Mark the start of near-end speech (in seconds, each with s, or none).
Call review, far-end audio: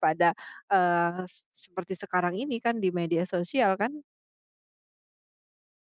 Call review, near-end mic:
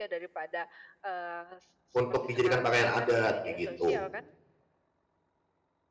1.9 s